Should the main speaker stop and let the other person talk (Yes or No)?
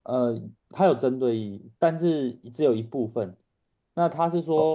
No